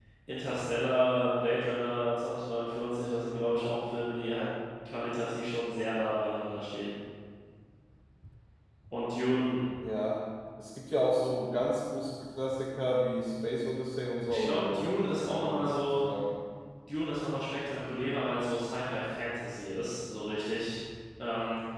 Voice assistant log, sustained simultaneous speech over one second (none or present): present